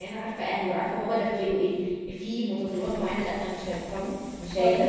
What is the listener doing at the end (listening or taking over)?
listening